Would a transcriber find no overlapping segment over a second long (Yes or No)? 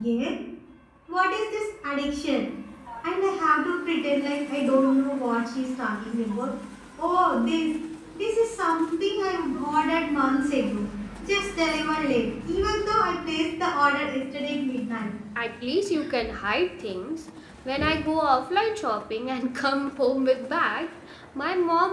Yes